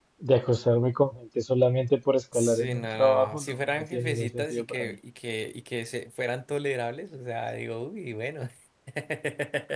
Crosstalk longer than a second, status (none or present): present